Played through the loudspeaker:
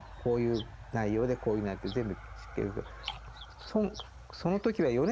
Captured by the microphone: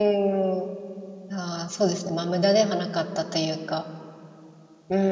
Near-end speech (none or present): present